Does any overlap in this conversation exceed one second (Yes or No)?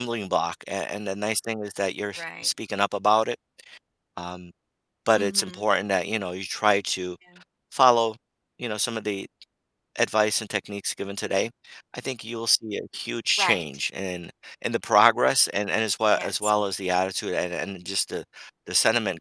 No